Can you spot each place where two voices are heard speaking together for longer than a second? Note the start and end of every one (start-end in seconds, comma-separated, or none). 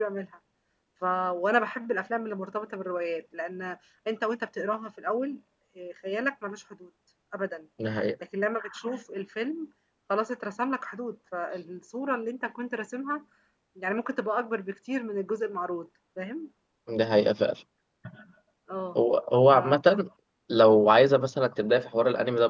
none